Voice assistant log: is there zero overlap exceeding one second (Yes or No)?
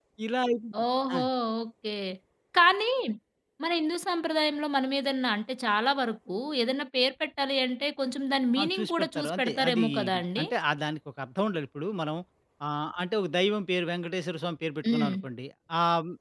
No